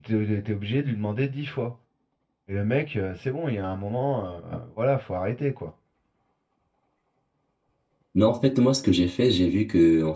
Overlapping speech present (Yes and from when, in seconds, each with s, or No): No